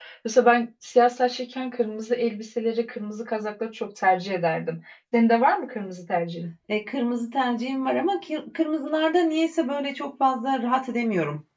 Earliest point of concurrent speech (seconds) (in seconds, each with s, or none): none